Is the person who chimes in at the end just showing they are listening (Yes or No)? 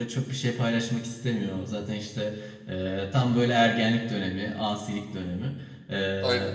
Yes